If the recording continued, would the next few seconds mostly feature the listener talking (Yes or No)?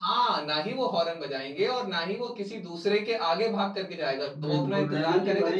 Yes